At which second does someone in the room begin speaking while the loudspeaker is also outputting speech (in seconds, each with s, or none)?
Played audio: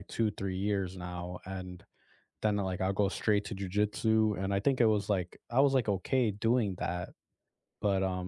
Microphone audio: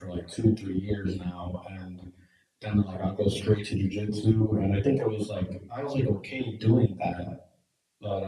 none